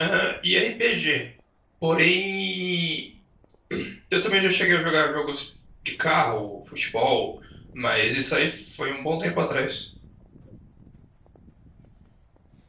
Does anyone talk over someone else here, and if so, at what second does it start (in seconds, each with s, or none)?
none